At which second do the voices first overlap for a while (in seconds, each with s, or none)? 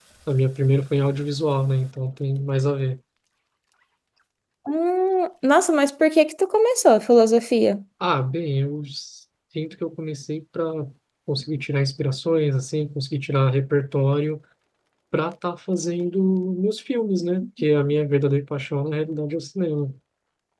none